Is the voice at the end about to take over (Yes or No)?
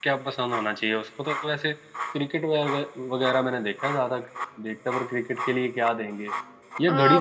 Yes